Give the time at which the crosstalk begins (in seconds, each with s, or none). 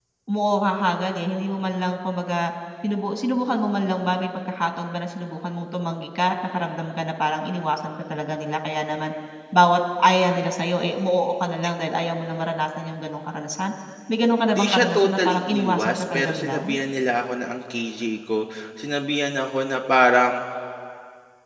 14.5 s